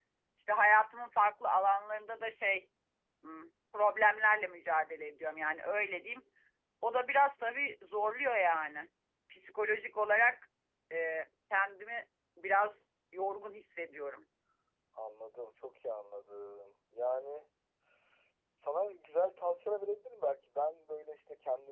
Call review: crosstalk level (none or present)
none